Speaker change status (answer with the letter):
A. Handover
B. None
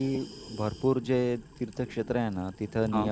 B